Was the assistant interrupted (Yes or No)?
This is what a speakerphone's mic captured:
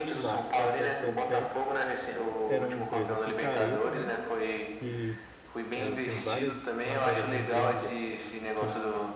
Yes